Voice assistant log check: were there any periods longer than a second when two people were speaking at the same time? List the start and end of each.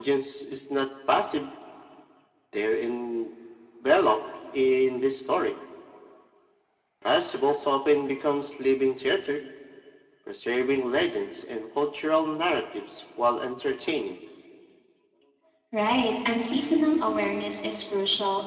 none

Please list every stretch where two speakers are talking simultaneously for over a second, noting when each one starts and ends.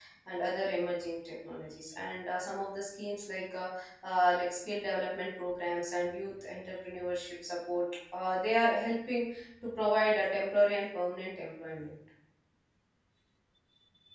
none

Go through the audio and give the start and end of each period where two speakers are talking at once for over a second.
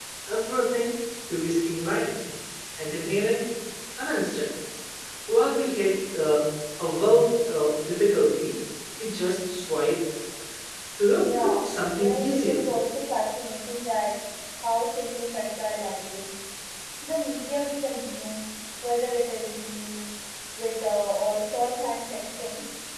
11.2-12.6

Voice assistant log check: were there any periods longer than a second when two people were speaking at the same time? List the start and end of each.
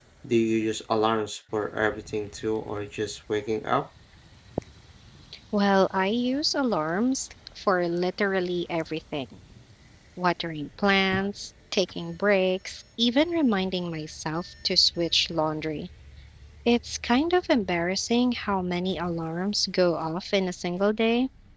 none

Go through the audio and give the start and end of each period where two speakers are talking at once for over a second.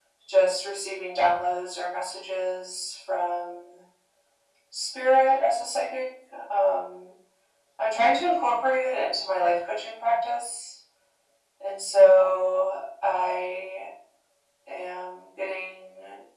none

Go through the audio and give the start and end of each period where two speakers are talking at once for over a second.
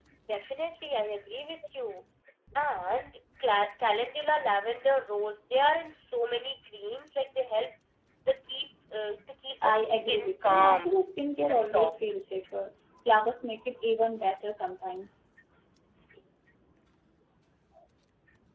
9.6-10.9

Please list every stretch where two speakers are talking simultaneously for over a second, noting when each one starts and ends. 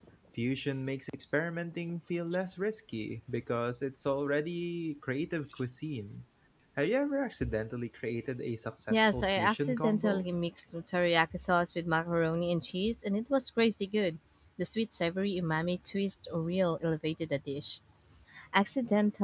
8.9-10.3

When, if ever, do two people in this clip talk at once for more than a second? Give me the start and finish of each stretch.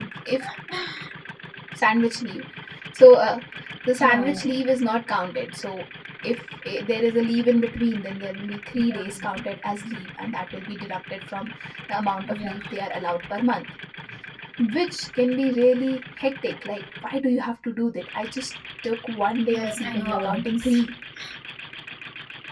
19.5-20.8

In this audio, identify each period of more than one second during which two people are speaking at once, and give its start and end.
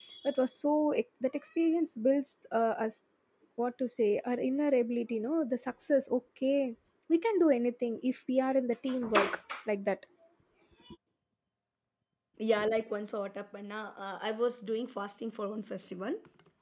none

